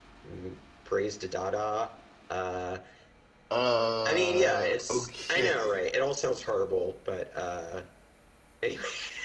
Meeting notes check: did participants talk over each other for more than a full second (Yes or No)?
Yes